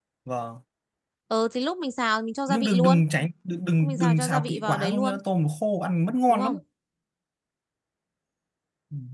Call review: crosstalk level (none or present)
present